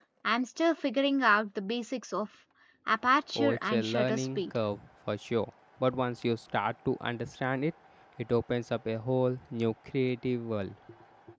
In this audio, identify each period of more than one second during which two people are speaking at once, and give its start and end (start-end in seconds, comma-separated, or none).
3.4-4.6